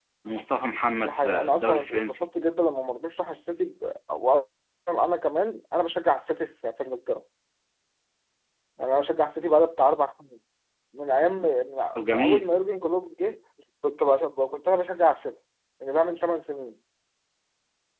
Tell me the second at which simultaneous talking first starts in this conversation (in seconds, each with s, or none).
1.0 s